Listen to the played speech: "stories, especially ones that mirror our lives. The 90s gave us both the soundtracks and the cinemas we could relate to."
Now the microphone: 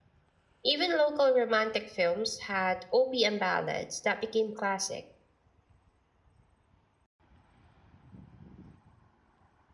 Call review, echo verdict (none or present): none